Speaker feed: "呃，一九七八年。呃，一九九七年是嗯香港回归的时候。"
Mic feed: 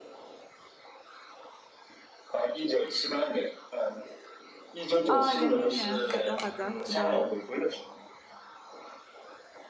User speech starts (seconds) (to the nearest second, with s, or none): 5 s